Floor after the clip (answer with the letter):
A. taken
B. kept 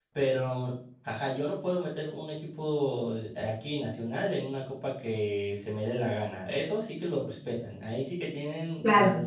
A